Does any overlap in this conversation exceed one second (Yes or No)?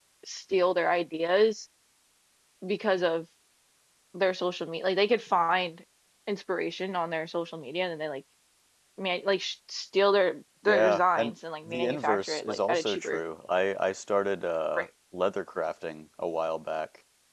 Yes